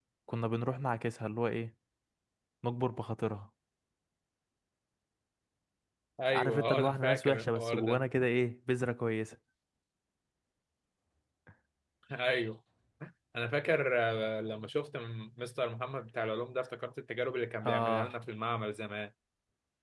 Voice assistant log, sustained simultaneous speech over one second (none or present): present